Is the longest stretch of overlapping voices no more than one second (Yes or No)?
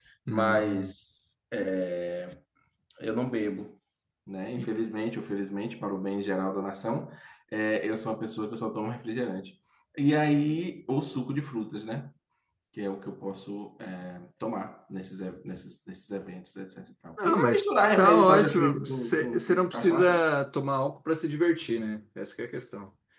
No